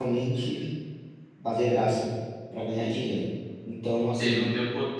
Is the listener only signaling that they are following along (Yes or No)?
No